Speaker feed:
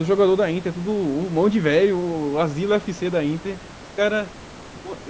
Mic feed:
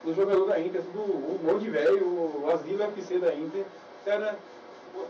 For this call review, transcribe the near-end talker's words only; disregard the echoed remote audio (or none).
none